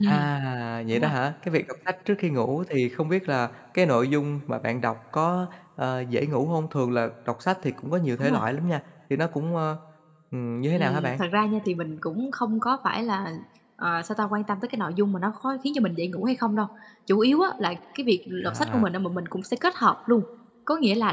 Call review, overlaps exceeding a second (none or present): none